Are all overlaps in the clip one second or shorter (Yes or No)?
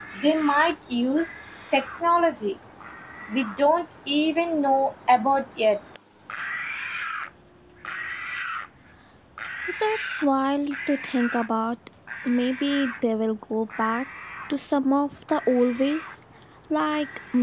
Yes